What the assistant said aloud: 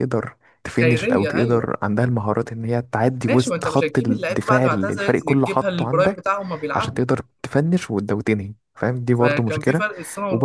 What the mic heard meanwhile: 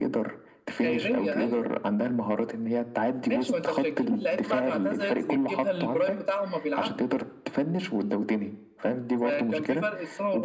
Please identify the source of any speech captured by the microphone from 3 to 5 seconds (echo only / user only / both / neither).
echo only